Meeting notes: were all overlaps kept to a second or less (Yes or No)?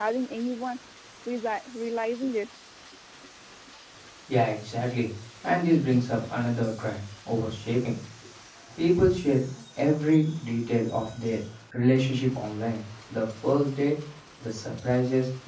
Yes